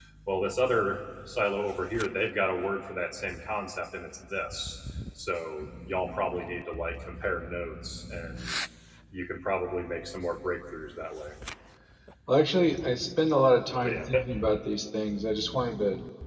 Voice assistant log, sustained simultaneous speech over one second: none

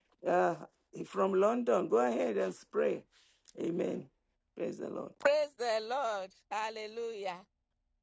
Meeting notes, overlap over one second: none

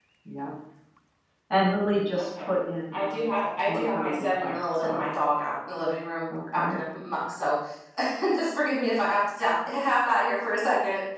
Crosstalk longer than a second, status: present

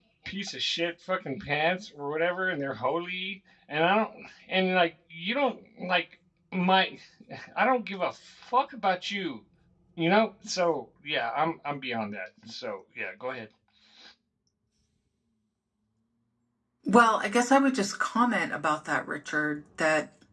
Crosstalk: none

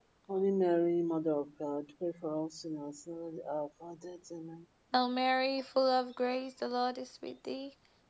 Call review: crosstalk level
none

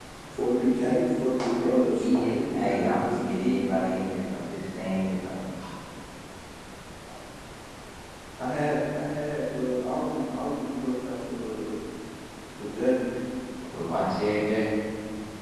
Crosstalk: present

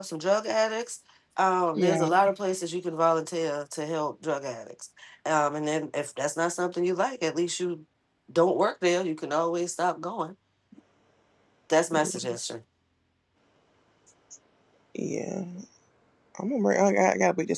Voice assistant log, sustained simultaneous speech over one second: none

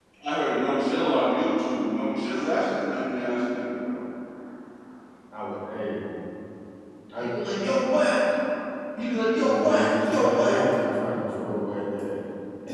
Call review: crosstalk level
present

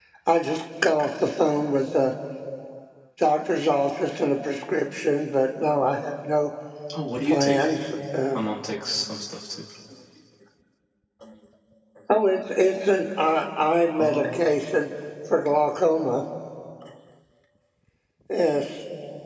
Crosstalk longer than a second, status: none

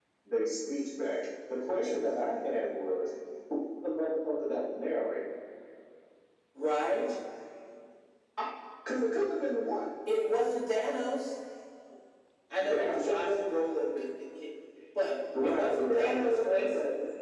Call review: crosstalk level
present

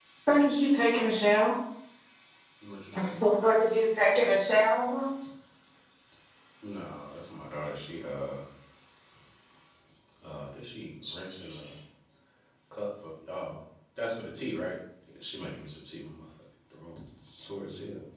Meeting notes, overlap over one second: none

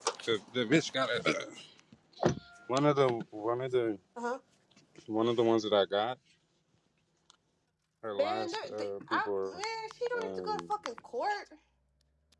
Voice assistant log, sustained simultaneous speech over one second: present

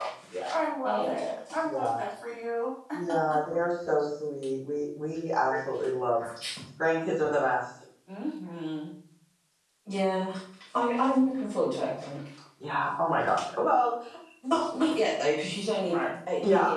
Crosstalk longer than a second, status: none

